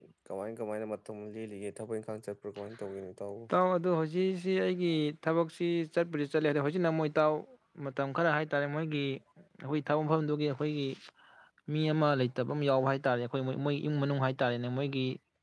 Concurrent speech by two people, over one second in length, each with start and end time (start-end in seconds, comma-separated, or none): none